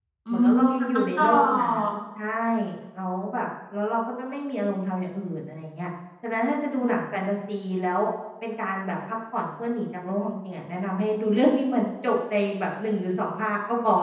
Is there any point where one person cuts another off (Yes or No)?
Yes